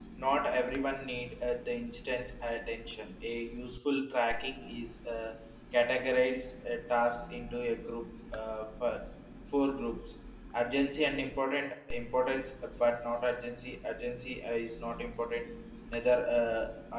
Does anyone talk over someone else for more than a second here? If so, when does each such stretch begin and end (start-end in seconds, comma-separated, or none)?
none